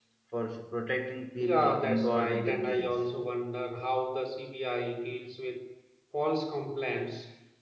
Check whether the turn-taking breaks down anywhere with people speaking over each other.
Yes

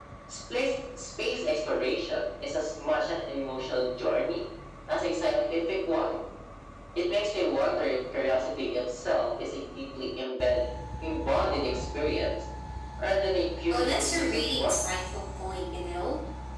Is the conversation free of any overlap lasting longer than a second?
No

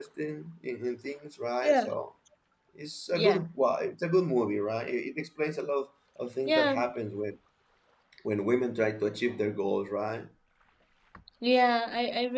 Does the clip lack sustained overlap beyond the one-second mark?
Yes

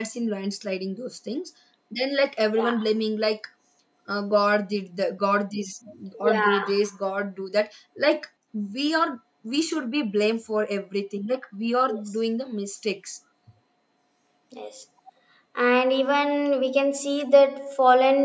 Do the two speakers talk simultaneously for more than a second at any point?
No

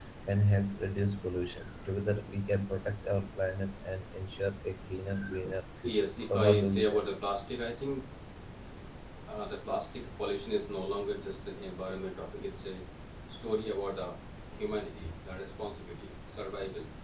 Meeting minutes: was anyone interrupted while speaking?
Yes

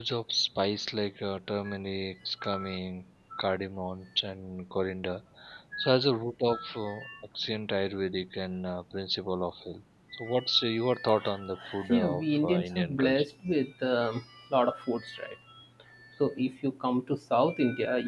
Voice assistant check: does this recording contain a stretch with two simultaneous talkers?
Yes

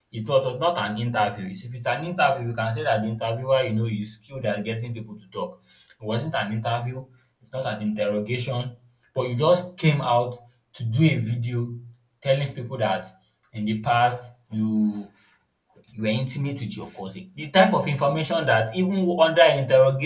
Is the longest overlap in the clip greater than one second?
No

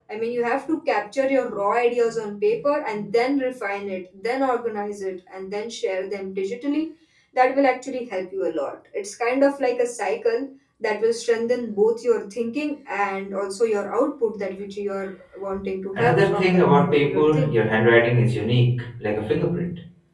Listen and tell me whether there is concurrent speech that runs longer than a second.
Yes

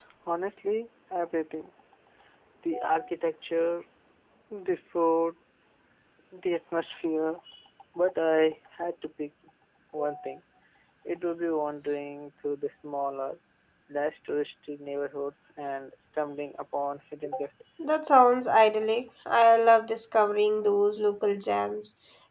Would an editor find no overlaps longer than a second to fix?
Yes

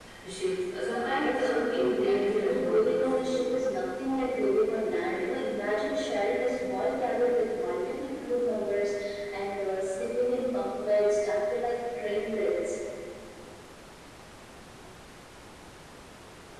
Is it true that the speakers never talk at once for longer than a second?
No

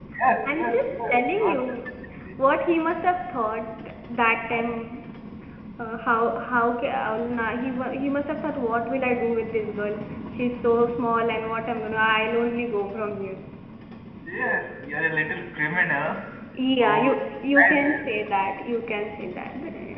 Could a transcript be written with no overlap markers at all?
No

